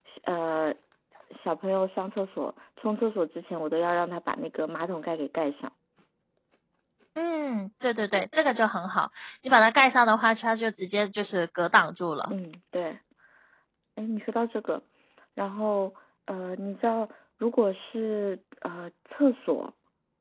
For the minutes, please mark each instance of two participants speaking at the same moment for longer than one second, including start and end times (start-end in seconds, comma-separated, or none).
none